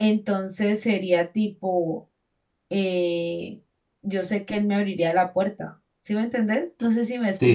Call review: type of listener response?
taking over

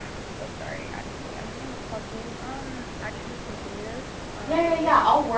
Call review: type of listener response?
taking over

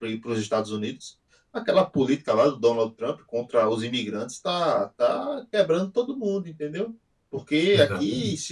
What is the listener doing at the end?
listening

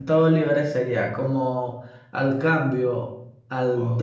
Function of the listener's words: listening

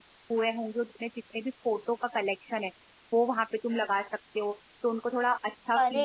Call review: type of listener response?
taking over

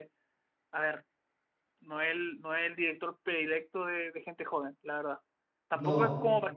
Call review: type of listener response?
listening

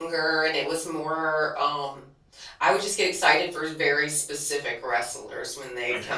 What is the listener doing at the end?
listening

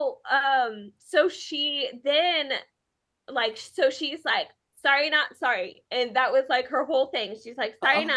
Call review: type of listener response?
listening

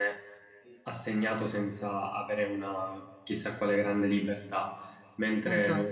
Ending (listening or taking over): listening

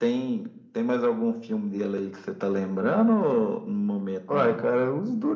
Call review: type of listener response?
taking over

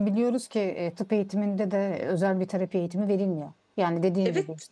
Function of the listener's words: listening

